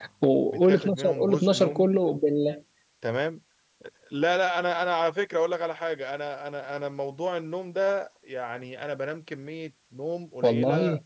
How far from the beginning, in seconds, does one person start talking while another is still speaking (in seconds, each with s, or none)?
0.5 s